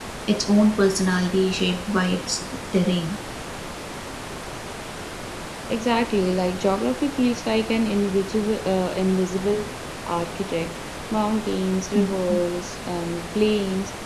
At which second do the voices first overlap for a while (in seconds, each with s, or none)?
none